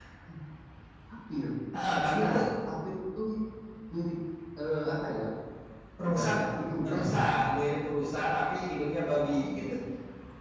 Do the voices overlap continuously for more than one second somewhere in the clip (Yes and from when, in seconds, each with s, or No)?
No